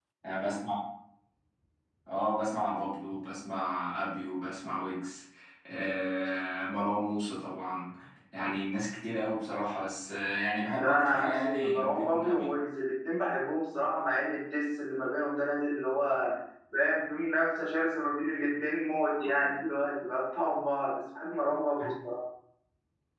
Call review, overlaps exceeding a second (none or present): present